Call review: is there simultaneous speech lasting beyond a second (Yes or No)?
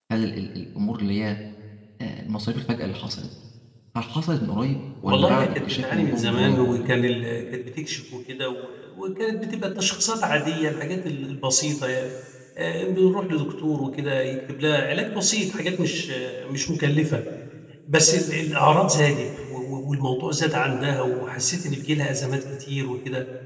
Yes